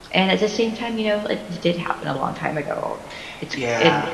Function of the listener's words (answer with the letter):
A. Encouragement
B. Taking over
A